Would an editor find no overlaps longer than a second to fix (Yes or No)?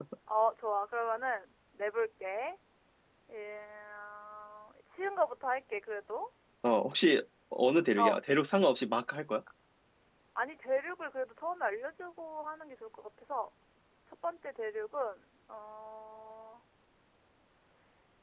Yes